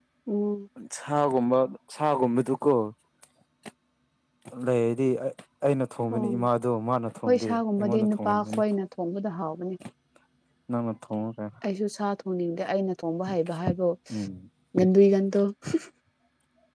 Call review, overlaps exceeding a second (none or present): present